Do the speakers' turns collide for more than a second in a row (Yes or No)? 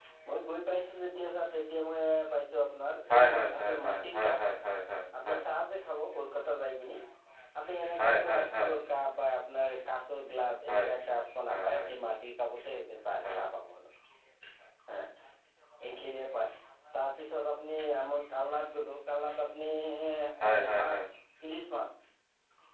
Yes